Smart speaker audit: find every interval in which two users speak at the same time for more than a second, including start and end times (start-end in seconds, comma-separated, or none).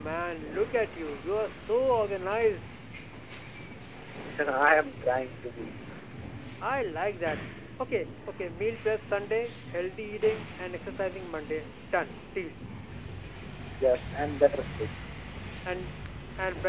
none